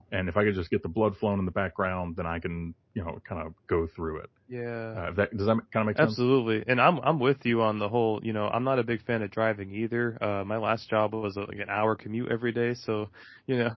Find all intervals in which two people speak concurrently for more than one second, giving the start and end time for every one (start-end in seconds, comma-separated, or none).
none